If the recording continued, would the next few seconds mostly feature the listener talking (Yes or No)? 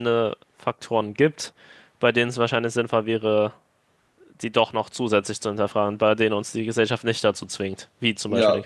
Yes